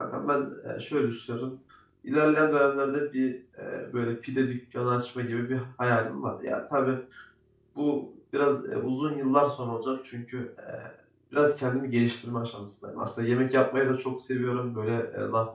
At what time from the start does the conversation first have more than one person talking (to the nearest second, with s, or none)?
none